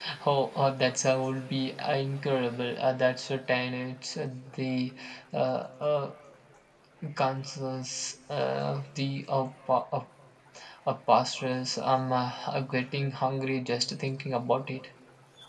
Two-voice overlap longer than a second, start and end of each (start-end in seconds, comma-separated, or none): none